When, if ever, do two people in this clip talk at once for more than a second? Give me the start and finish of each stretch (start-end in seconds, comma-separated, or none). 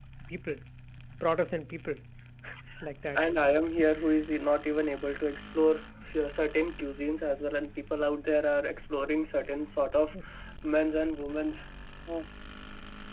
none